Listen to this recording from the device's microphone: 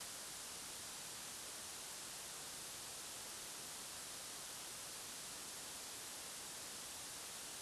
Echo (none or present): none